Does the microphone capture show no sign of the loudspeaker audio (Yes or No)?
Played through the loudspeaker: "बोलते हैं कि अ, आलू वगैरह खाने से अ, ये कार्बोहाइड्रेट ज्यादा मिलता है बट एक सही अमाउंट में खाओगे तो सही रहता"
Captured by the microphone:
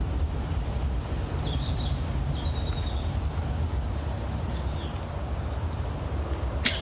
Yes